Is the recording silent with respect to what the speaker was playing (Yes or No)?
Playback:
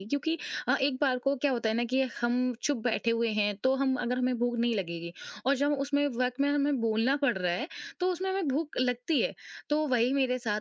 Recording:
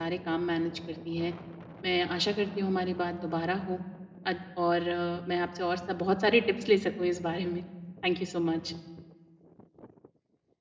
Yes